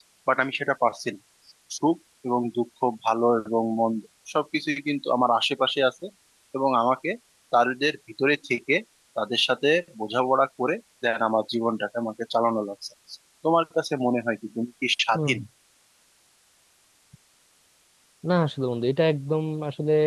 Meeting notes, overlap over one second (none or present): none